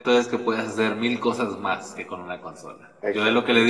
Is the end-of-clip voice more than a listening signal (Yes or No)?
No